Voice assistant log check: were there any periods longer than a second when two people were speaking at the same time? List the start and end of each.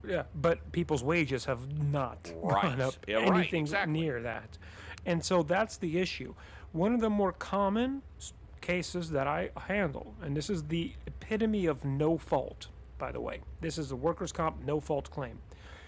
2.4-4.1

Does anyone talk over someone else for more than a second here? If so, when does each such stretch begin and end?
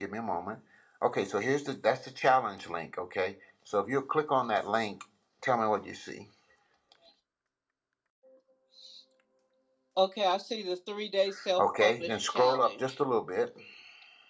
11.6-12.8

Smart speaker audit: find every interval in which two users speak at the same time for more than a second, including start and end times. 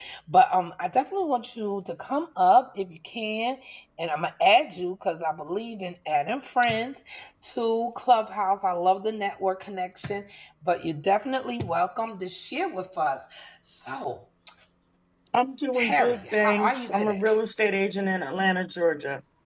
15.7-17.2

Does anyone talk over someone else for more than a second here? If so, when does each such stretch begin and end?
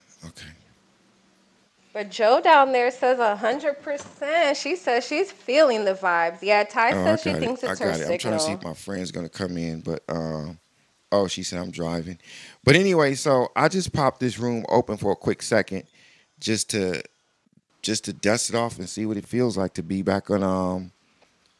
6.9-8.6

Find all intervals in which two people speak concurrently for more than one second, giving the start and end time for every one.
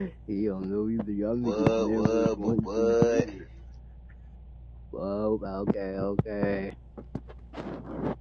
1.4-3.3

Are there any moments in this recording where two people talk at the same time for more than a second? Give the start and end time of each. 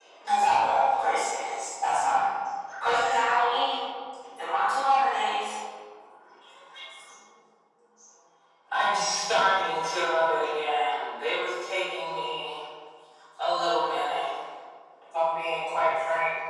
none

